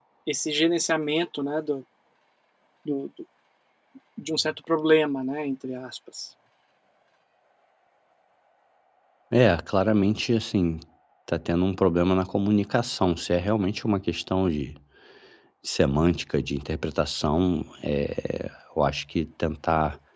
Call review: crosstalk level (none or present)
none